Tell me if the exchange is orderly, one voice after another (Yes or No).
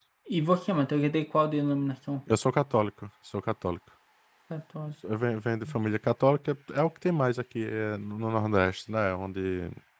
Yes